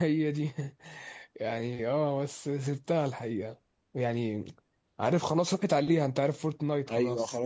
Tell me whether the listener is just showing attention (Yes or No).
No